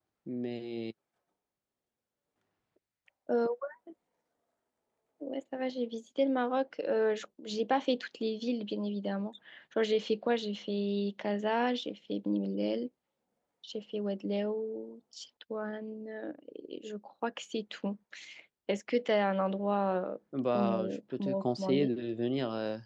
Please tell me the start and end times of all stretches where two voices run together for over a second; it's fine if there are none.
20.6-21.9

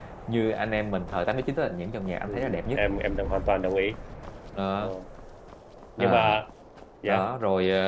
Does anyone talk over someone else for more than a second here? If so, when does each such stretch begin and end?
none

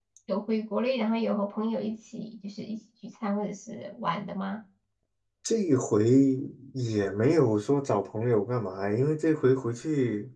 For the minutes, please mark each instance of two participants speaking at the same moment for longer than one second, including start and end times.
none

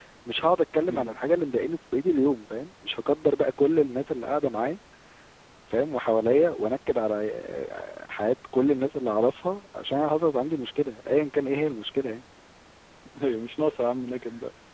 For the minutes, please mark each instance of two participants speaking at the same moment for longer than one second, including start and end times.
none

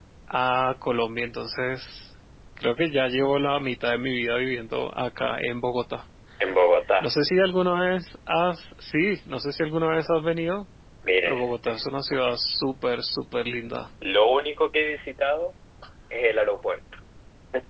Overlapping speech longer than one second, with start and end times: none

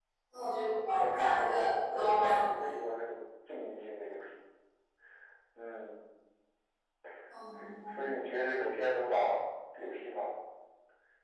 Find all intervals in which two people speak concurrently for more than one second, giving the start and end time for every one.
0.9-2.4

